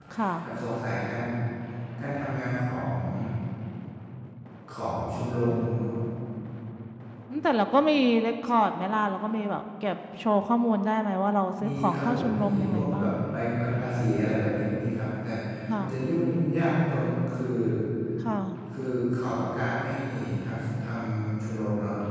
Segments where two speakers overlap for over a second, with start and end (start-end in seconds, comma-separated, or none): 11.7-13.1